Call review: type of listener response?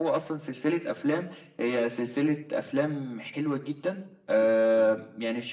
listening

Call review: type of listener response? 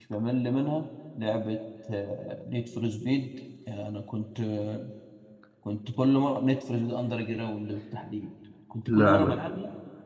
listening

